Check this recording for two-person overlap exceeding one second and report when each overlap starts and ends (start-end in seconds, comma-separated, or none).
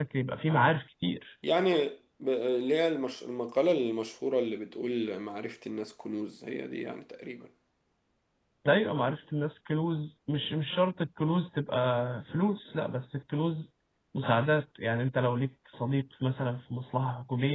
none